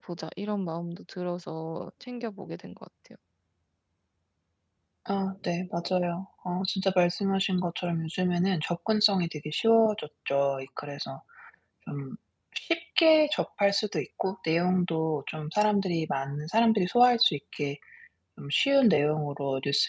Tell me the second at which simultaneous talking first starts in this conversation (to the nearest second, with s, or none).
none